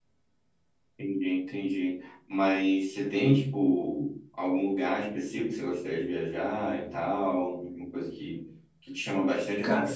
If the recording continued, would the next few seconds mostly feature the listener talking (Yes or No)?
No